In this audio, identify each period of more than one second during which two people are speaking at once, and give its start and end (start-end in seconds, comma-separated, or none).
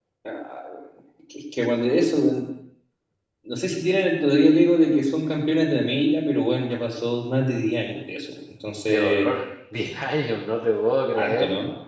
none